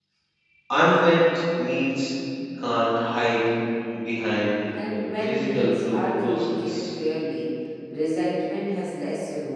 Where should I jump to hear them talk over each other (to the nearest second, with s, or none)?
5 s